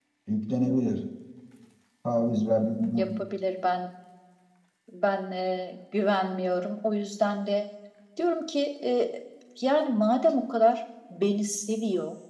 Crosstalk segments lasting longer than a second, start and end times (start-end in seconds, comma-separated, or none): none